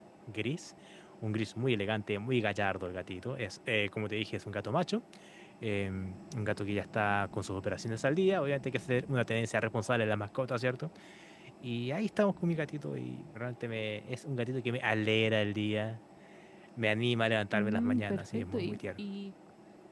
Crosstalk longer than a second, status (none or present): present